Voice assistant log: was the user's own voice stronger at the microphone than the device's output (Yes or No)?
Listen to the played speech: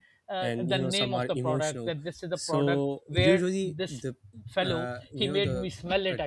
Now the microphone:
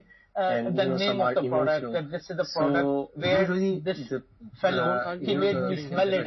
No